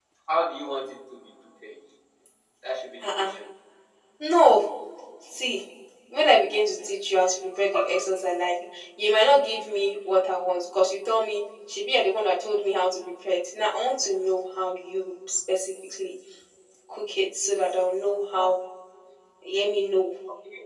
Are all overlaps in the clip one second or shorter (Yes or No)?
Yes